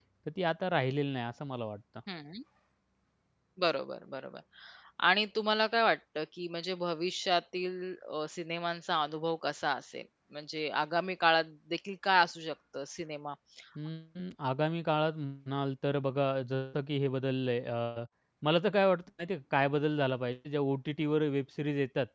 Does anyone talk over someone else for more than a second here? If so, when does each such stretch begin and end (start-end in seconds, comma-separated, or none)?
none